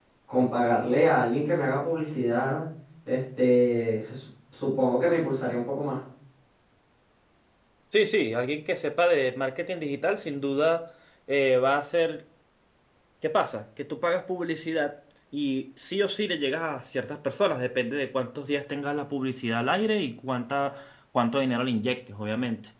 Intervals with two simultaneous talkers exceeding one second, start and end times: none

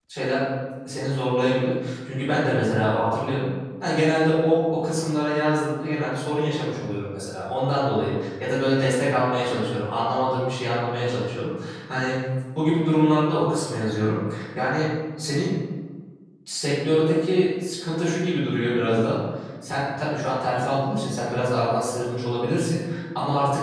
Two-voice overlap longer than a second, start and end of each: none

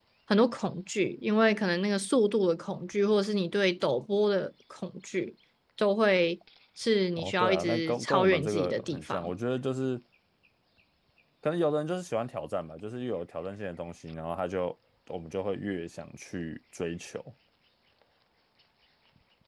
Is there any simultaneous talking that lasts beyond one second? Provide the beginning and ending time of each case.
7.2-9.3

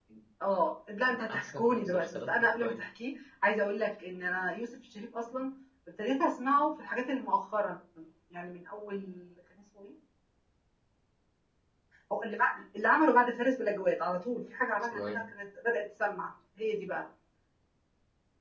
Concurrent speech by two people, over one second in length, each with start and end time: 1.3-2.7

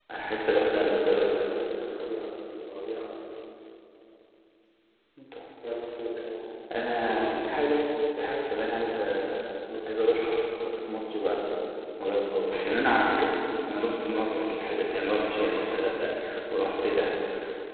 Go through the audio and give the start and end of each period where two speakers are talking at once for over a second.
none

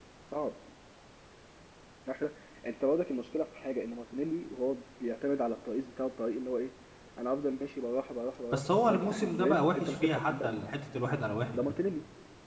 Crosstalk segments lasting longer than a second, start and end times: 8.5-10.6

